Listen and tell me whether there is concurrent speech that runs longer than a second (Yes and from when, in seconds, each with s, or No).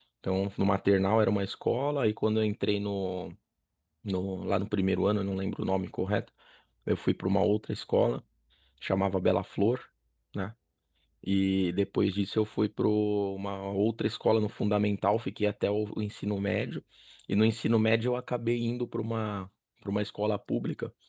No